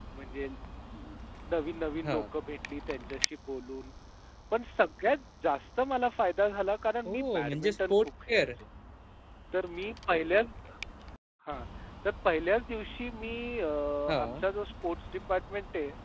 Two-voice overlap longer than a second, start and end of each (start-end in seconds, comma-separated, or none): 7.1-8.5